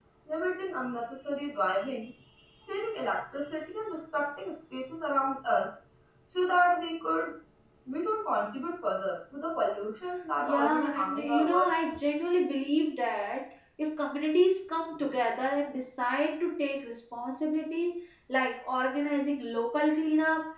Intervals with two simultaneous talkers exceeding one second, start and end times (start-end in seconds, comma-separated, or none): 10.4-11.7